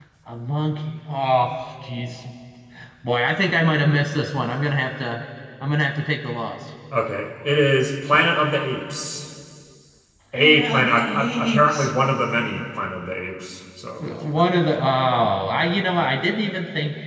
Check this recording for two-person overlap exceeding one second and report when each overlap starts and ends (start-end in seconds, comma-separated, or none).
10.3-11.9